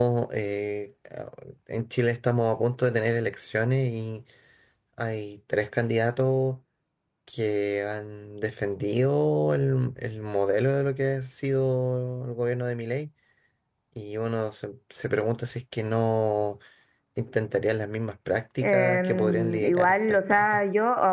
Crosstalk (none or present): present